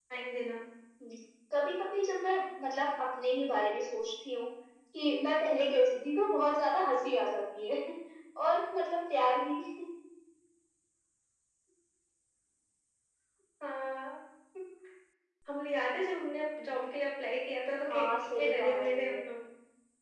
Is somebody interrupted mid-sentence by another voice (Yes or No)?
Yes